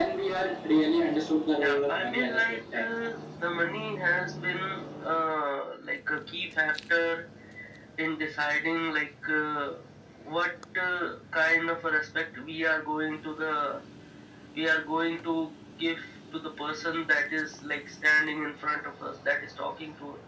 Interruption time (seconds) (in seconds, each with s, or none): 1.6 s